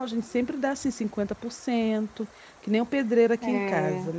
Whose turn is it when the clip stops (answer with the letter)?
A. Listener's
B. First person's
B